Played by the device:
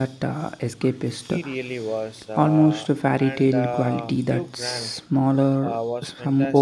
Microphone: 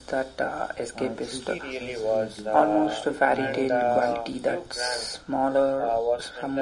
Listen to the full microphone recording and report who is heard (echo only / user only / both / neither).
both